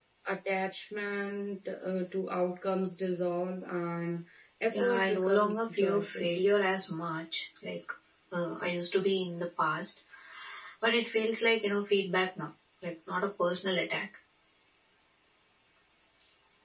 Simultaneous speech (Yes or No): Yes